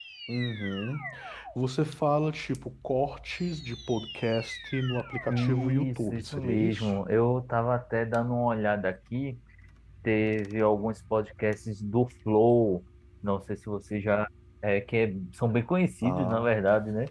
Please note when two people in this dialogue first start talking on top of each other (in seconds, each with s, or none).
5.3 s